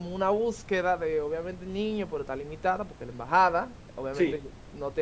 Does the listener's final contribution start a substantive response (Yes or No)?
No